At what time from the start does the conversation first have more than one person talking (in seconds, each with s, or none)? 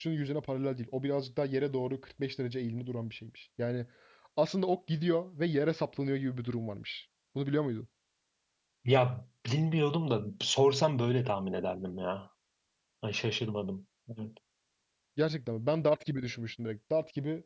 none